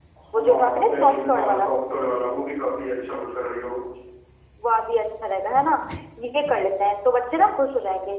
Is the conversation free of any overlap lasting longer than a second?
No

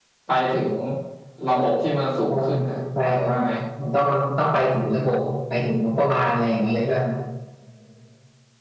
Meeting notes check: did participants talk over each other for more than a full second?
No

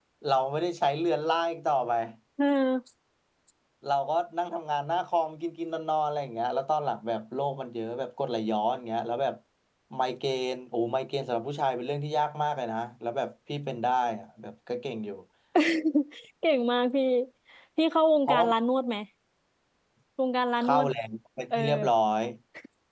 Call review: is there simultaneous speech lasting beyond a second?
No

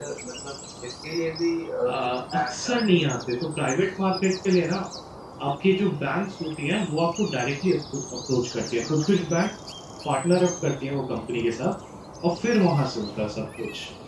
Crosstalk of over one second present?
Yes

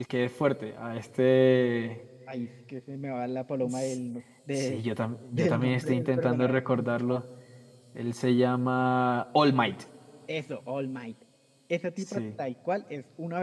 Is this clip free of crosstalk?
No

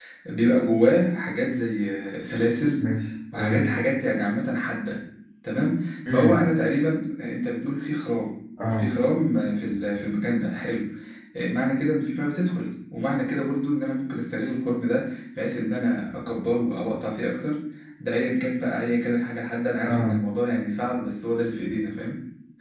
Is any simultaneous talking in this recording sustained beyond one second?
No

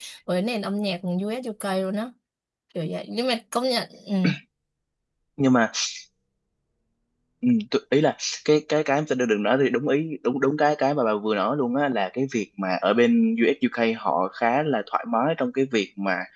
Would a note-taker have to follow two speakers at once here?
No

